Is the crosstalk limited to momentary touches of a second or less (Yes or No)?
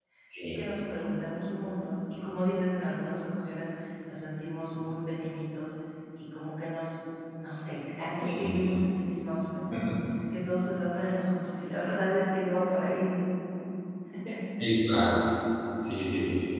Yes